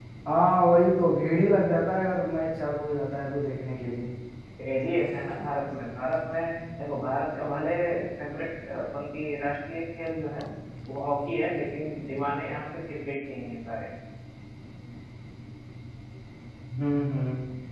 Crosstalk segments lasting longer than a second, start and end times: none

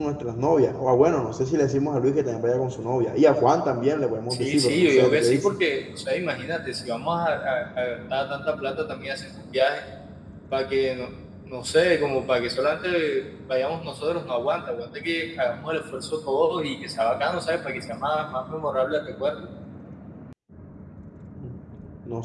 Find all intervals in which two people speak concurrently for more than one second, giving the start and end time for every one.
4.3-5.5

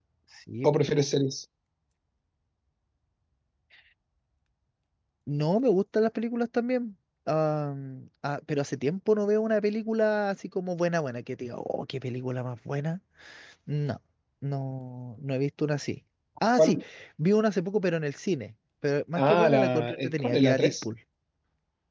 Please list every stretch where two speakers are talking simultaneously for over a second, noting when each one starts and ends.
19.2-20.8

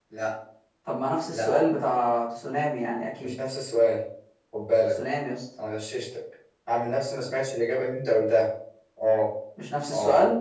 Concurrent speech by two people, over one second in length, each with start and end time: none

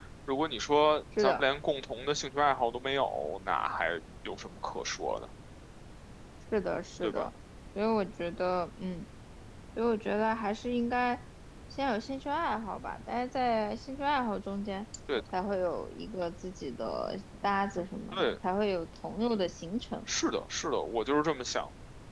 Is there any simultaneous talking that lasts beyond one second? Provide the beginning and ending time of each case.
none

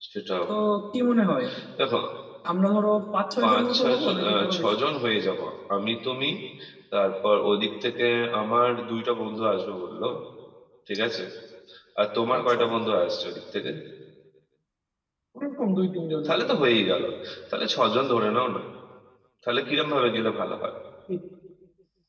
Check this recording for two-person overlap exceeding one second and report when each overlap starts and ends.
3.4-4.6

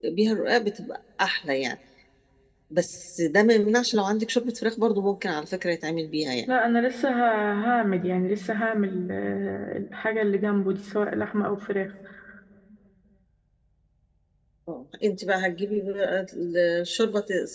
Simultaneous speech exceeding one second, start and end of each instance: none

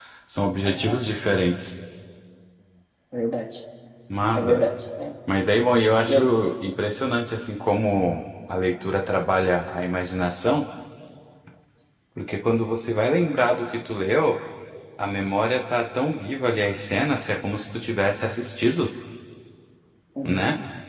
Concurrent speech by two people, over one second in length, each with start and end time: none

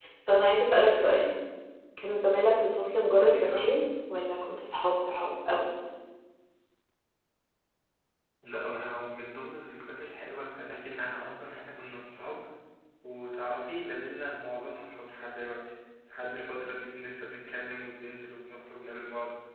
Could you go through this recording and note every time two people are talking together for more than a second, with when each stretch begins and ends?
none

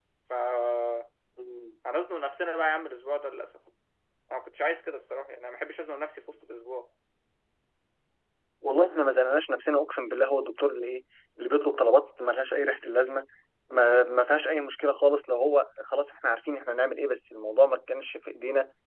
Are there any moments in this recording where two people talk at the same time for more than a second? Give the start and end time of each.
none

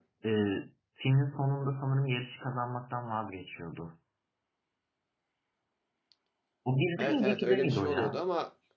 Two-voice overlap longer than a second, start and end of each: 7.0-8.2

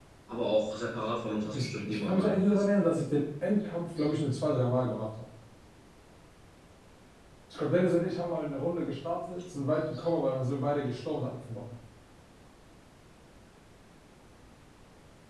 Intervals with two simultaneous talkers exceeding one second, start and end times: 1.4-2.6

